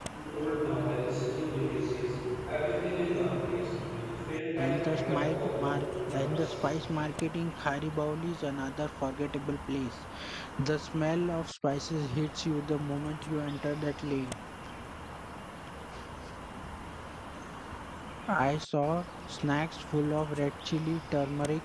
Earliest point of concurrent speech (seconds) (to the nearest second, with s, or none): 5 s